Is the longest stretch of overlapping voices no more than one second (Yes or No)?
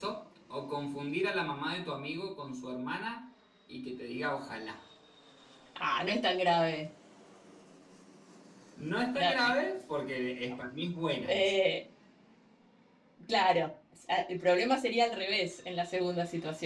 Yes